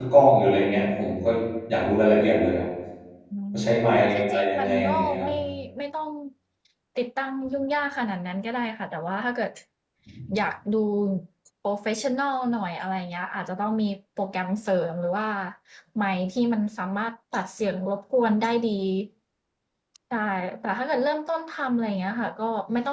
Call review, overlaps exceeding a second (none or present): present